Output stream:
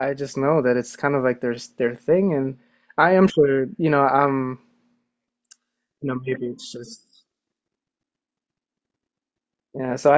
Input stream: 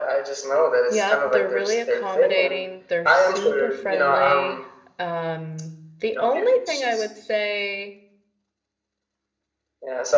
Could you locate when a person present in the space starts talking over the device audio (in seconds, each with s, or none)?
0.9 s